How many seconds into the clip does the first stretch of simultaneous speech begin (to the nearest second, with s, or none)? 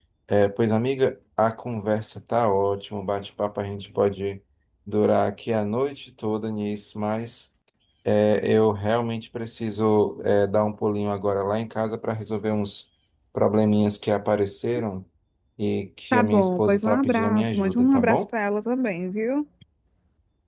16 s